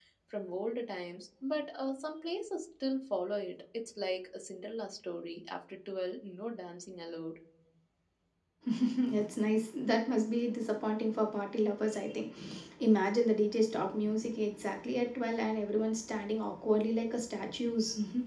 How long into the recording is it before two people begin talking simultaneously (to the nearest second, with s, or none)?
none